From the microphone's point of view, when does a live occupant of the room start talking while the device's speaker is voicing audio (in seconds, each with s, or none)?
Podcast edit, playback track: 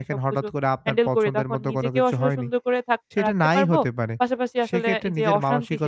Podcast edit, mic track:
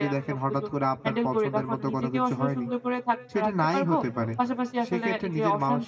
none